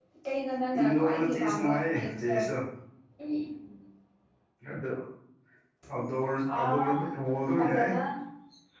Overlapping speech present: Yes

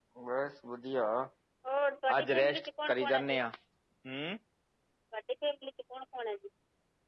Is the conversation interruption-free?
No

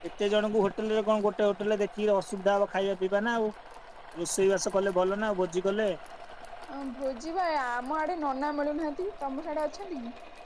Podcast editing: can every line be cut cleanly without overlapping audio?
Yes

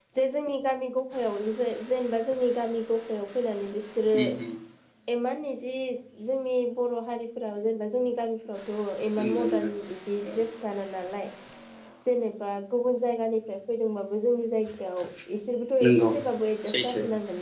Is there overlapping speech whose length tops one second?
No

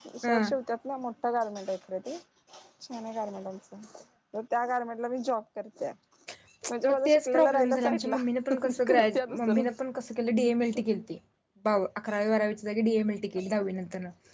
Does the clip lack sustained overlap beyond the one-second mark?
No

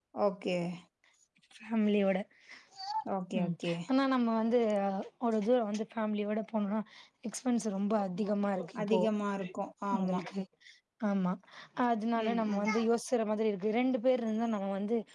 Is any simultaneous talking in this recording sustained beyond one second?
No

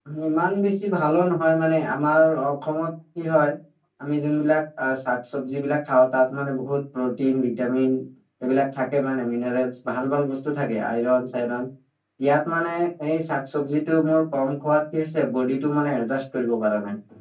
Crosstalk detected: No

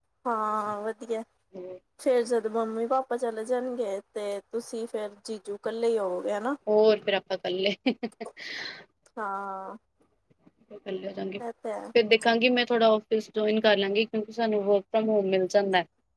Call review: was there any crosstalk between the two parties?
No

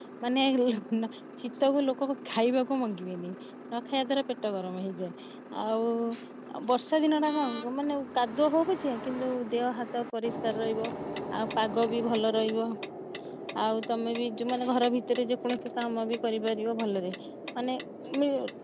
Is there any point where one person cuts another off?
No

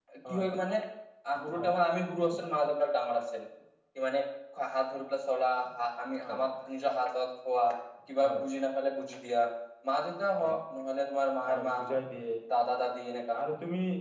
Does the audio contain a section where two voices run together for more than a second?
No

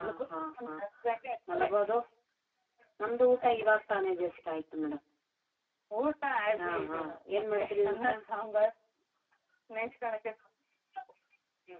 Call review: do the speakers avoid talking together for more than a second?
No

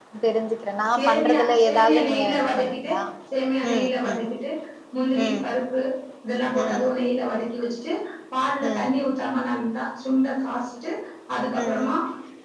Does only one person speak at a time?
No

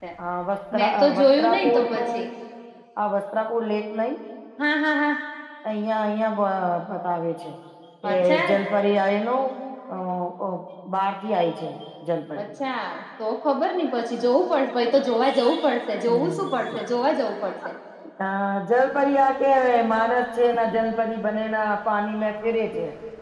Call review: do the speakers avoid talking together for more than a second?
No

